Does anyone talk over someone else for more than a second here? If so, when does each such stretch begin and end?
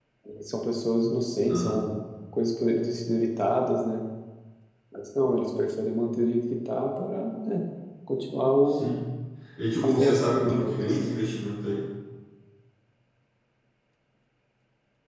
9.8-11.1

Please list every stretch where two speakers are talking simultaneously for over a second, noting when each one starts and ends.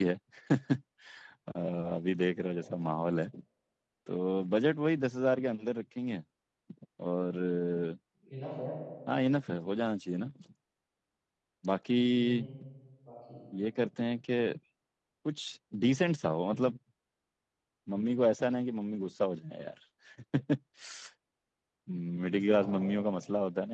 none

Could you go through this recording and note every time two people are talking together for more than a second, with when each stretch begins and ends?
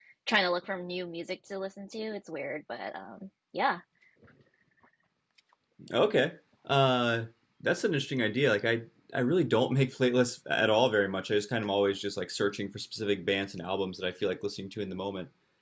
none

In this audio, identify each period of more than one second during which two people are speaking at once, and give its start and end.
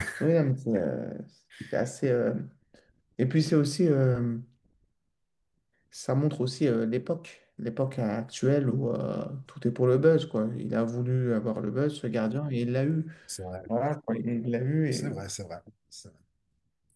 none

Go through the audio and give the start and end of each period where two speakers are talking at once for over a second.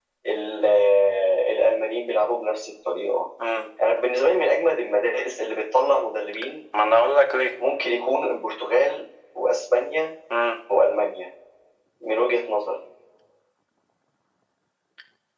none

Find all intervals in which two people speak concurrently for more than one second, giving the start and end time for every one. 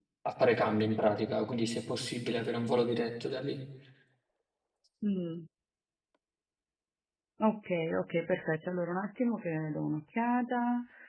none

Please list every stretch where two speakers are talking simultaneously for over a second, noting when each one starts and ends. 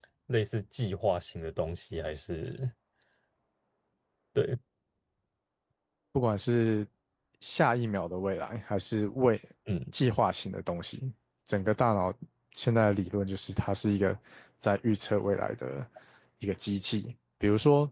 none

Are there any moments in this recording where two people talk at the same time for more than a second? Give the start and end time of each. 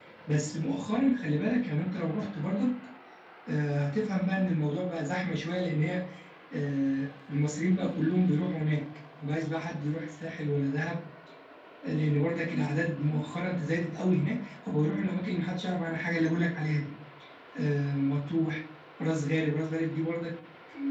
none

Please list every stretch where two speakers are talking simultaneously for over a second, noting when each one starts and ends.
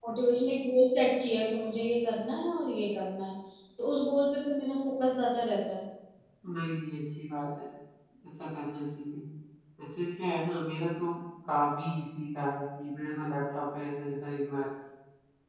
none

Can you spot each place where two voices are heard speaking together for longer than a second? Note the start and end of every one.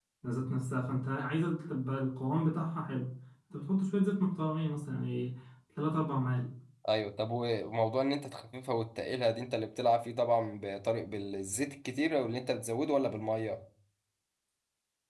none

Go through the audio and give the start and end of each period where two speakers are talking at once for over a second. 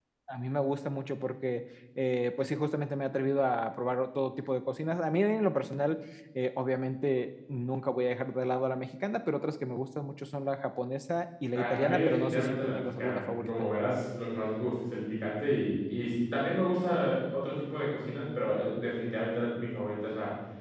11.6-13.5

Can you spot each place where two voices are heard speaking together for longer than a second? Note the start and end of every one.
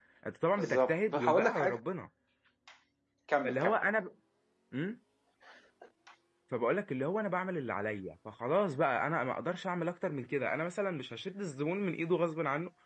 0.6-1.8

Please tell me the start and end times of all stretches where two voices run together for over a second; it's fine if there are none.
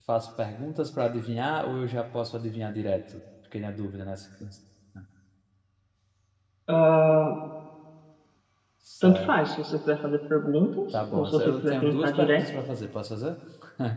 11.1-12.4

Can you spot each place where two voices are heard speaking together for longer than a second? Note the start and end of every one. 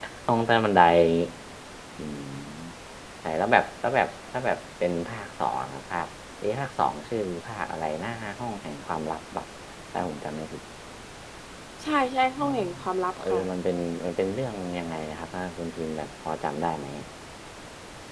none

